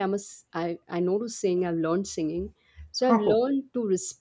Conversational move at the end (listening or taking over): listening